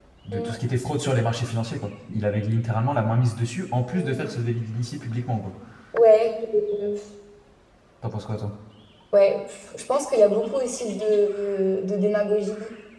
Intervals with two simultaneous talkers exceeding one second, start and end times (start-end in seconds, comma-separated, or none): none